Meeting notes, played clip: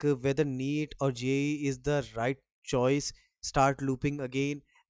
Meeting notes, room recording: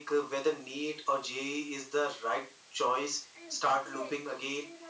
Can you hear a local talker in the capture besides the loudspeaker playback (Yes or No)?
Yes